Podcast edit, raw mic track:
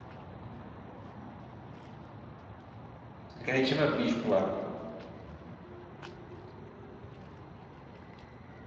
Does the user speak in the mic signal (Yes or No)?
Yes